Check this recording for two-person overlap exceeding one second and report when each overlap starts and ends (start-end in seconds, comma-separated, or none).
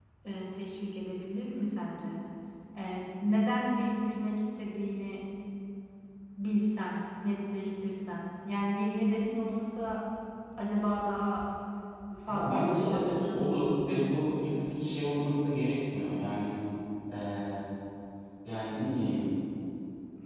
12.3-14.9